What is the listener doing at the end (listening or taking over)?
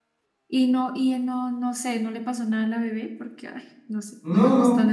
taking over